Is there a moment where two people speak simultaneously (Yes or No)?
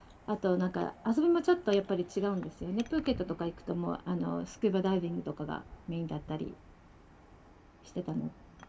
No